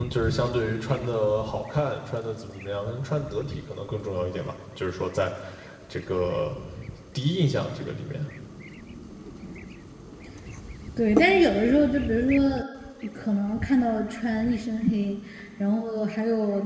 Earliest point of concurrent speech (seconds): none

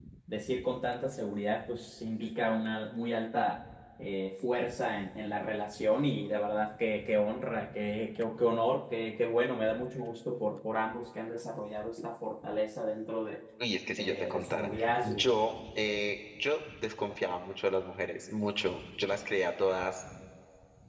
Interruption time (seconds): 13.9 s

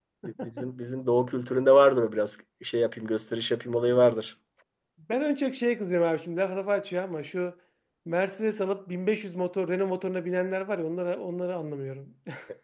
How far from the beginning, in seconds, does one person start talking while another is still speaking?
none

